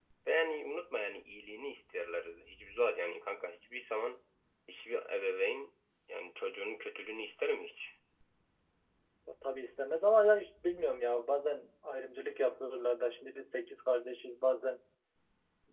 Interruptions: none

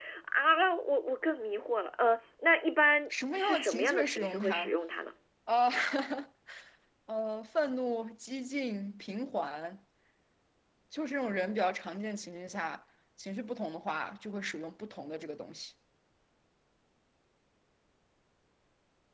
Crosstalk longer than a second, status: present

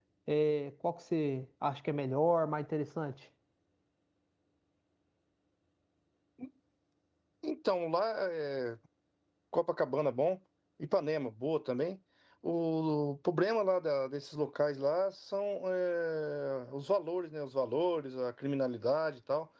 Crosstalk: none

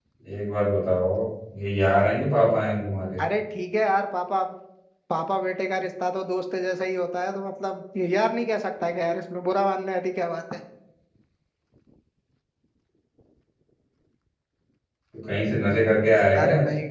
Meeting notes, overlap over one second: none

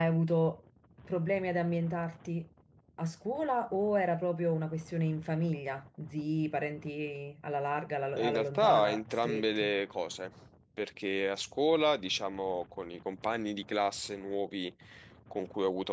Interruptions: present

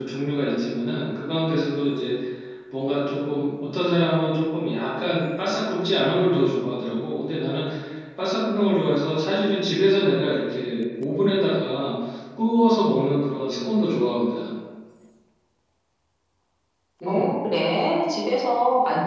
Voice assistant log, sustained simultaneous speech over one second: none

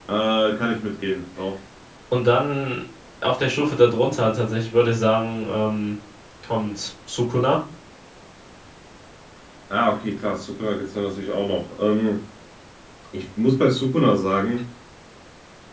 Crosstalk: none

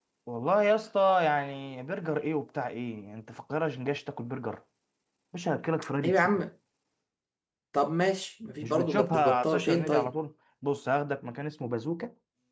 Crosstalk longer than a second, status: present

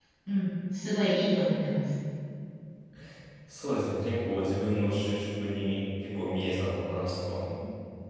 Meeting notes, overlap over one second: none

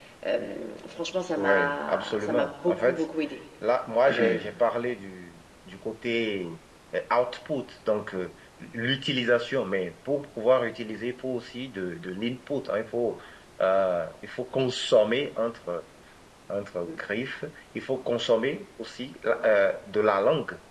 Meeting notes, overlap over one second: present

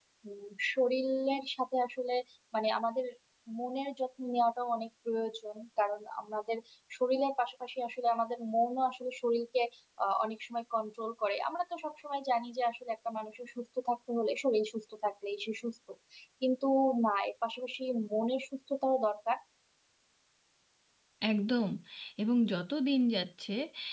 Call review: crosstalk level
none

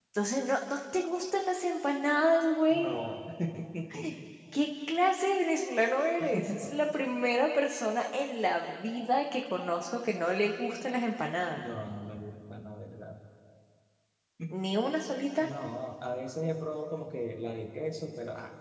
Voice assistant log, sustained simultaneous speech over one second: none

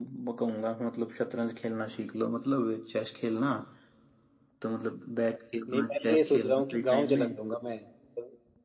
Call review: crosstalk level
present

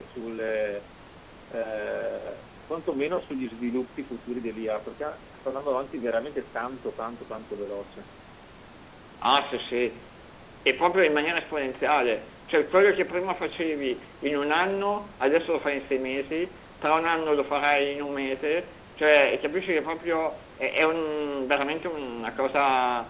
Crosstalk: none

